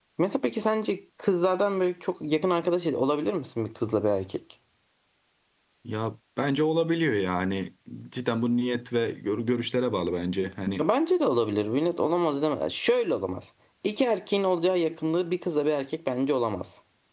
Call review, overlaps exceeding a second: none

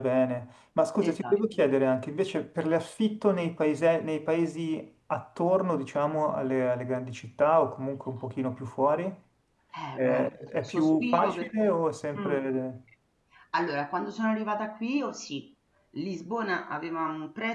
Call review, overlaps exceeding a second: present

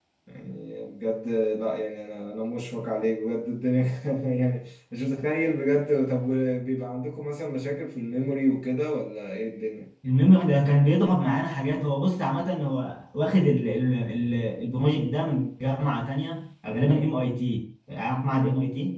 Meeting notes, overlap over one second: none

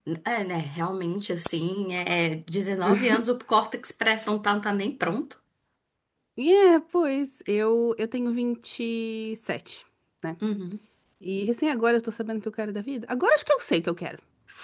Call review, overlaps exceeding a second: none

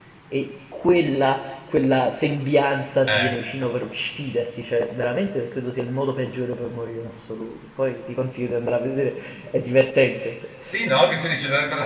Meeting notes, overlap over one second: none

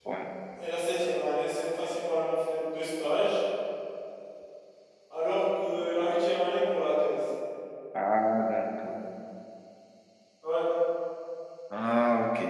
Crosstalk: none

